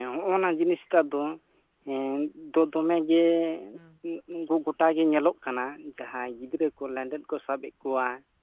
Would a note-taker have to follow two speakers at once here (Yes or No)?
No